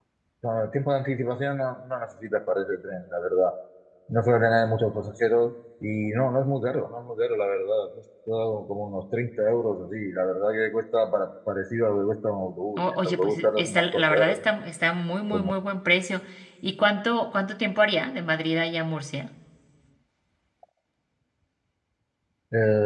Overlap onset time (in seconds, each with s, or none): 12.8 s